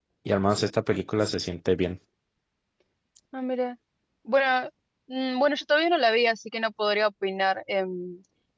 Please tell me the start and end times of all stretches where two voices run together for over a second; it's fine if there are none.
none

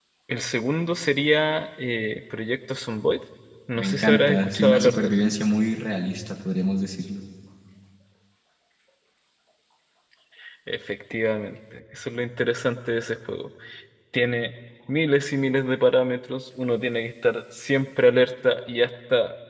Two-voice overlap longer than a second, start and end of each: 3.8-5.1

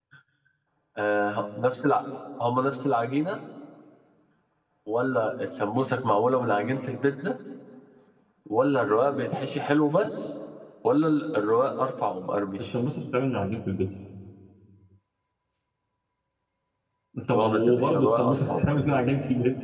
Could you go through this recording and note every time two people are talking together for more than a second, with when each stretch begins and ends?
17.3-18.8

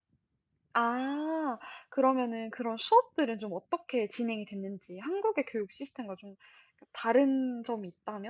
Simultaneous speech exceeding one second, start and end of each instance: none

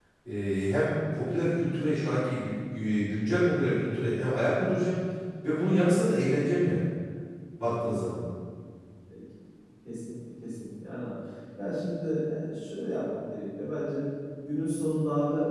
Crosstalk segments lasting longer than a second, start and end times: none

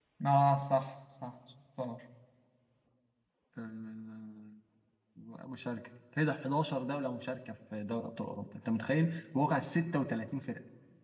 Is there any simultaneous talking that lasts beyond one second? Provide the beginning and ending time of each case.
none

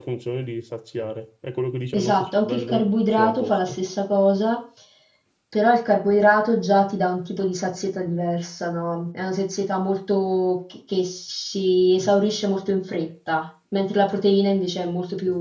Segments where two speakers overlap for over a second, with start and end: 1.9-3.8

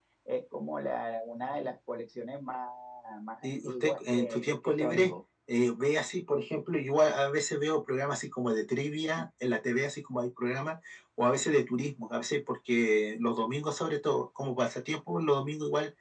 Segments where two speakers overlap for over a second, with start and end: 3.4-5.1

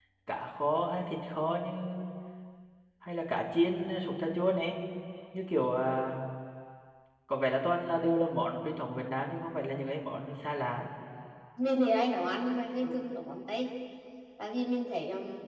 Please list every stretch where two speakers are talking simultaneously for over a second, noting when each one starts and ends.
none

